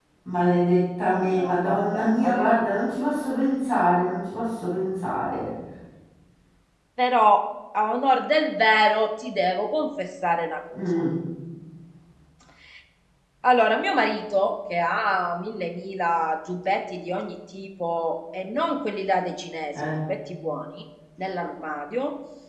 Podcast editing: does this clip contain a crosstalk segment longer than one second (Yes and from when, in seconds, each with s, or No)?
Yes, from 1.2 s